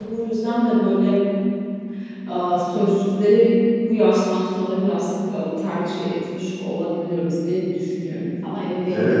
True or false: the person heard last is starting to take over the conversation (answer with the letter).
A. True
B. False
A